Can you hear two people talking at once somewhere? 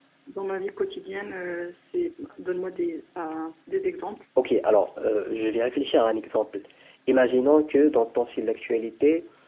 No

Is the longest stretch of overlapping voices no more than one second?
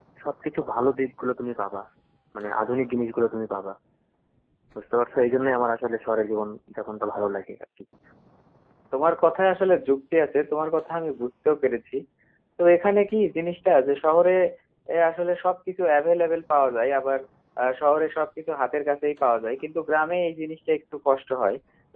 Yes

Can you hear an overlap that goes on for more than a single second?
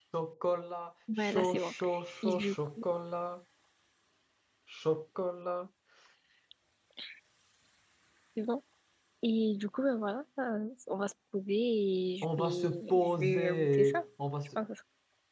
Yes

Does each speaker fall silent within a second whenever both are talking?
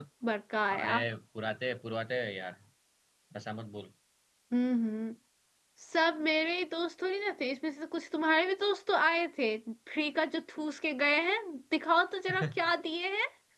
Yes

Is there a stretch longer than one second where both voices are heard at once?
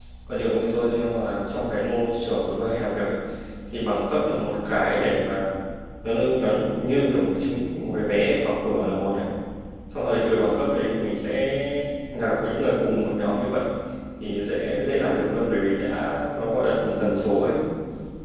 No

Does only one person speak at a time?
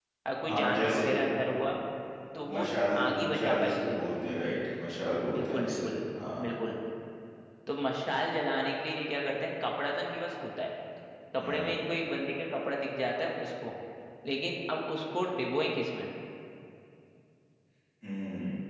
No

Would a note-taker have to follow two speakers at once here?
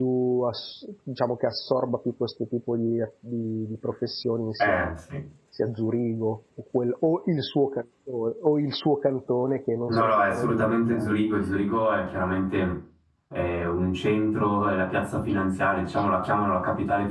Yes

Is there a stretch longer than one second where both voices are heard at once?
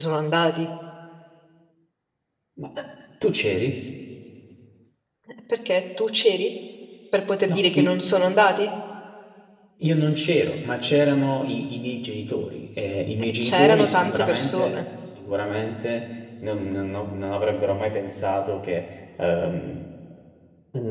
Yes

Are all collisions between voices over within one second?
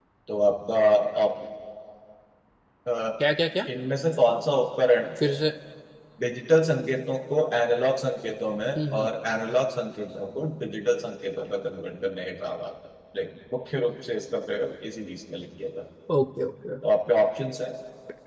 Yes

